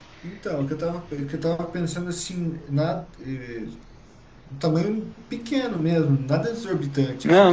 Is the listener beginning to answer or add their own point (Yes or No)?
Yes